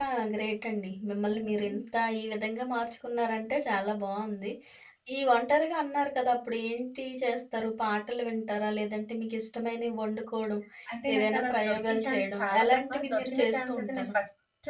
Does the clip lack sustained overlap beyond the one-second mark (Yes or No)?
No